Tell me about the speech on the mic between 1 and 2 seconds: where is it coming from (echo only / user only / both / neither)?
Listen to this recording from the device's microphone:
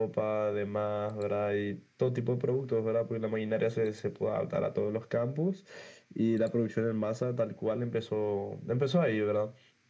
echo only